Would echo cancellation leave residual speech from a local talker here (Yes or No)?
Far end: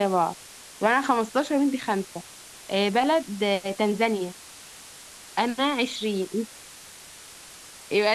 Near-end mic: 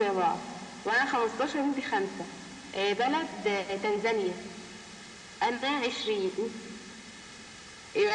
No